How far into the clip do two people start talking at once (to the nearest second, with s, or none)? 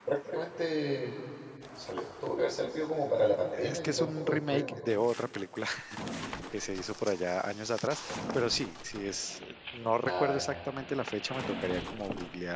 4 s